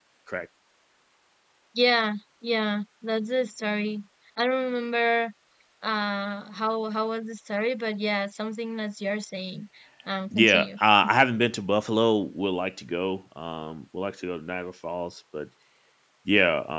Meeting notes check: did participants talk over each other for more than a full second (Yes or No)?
No